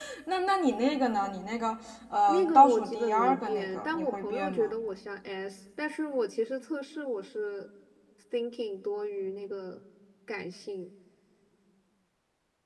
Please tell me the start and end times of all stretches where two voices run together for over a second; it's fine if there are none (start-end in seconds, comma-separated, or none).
2.3-4.7